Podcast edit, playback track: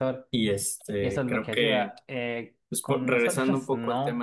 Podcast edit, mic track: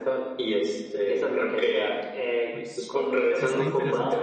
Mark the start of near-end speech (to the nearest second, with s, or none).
2 s